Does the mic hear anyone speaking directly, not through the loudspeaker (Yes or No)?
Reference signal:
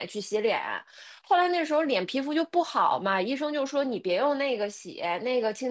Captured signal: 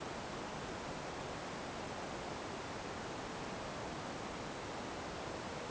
No